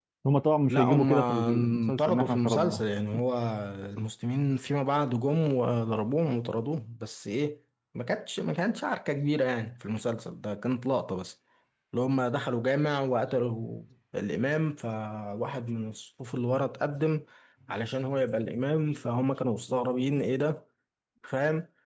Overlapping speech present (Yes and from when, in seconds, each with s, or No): Yes, from 0.7 s